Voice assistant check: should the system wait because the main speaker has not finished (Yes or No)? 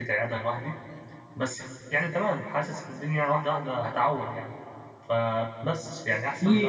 No